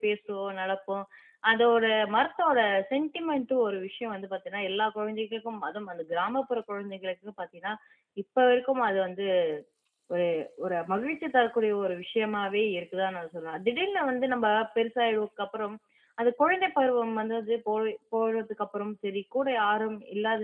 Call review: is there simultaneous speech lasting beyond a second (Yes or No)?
No